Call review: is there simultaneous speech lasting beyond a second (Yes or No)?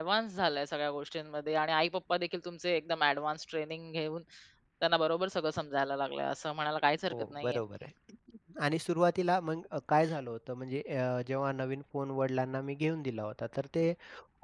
No